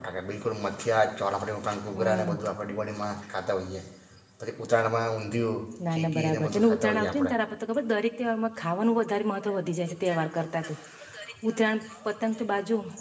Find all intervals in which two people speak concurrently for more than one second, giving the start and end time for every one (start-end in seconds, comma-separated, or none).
5.9-7.3